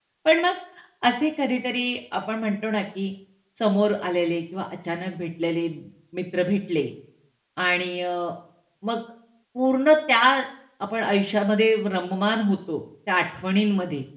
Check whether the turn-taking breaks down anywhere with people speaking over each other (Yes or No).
No